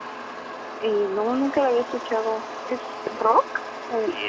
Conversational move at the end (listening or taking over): taking over